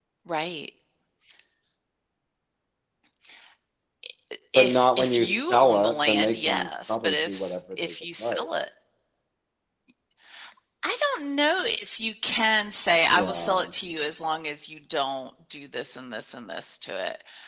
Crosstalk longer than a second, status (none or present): present